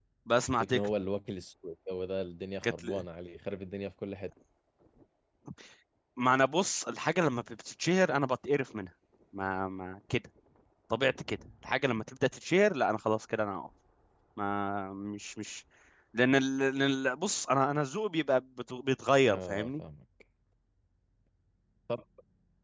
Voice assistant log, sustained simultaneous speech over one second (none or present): none